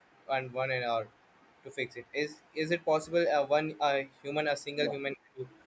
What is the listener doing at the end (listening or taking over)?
listening